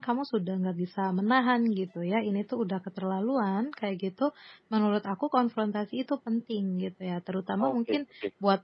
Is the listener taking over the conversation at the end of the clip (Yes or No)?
No